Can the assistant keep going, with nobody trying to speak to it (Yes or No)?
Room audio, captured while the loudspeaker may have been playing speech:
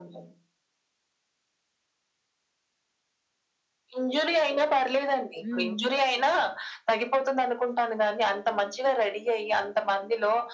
No